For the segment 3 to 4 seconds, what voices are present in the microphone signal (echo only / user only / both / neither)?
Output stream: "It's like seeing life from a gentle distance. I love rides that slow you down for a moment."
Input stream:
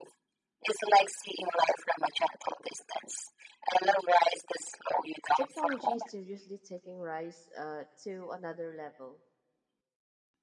echo only